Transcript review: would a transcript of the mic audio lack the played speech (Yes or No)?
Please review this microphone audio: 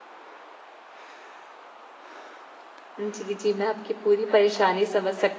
Yes